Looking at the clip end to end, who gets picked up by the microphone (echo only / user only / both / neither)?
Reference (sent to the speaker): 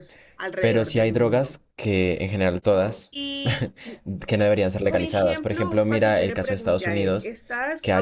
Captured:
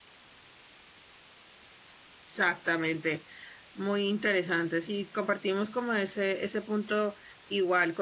user only